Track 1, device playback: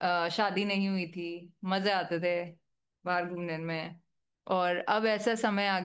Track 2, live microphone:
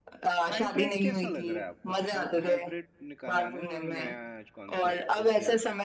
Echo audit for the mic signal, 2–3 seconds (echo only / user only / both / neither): both